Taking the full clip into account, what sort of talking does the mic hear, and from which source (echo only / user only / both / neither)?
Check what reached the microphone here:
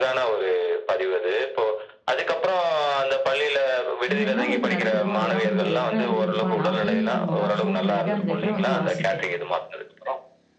both